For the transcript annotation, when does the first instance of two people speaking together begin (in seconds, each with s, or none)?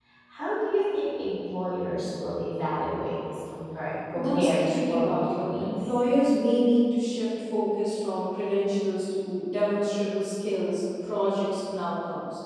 4.1 s